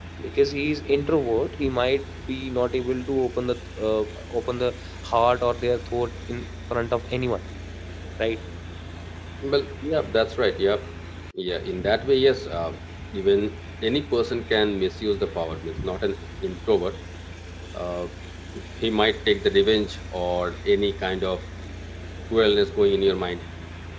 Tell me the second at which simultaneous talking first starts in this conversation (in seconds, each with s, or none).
none